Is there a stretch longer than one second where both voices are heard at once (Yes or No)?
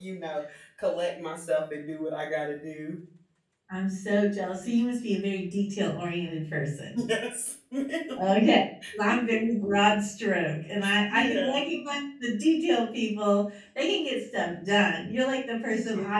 No